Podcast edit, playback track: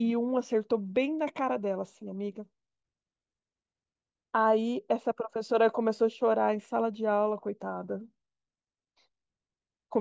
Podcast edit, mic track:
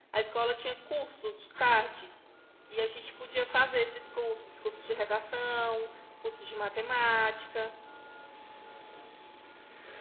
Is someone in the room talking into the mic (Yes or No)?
Yes